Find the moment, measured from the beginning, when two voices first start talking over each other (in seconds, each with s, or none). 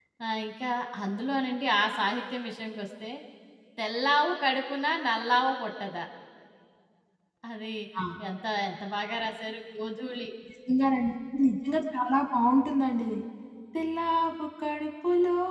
none